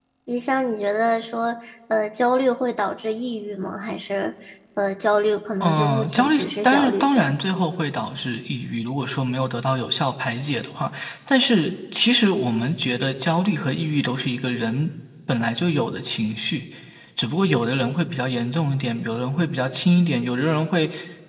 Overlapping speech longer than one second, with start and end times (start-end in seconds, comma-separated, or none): 5.6-7.3